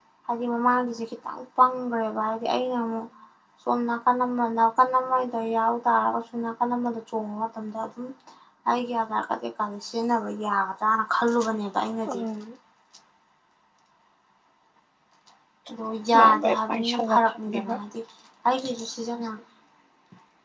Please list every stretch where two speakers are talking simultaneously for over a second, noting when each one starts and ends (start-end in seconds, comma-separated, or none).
16.1-17.7